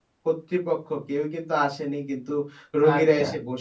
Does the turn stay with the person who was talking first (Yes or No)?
Yes